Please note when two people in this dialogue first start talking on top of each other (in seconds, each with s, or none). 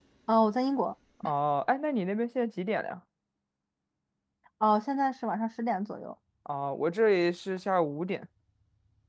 none